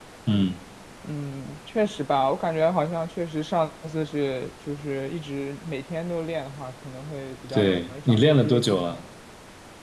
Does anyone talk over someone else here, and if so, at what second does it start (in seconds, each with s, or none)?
7.5 s